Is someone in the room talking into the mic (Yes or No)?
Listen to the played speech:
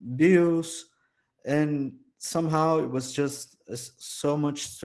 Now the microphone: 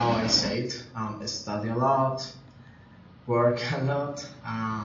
Yes